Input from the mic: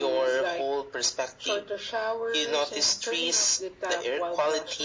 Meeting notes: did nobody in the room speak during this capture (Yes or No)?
Yes